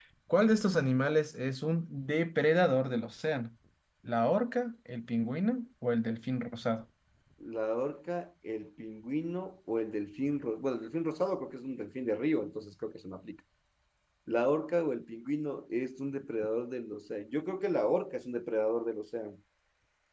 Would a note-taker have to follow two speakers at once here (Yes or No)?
No